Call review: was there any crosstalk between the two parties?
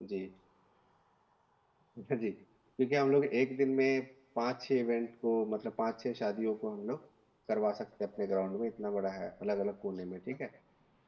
No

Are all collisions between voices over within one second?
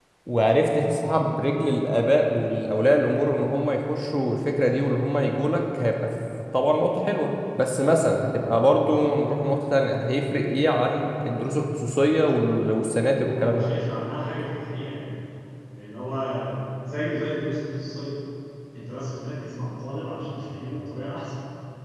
Yes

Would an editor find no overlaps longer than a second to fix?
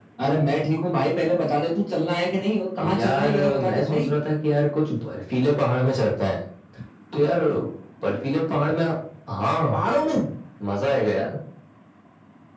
No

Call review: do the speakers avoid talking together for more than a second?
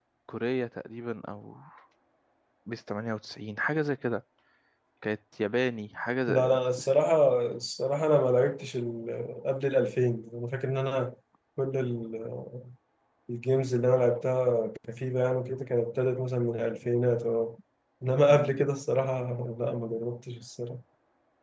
Yes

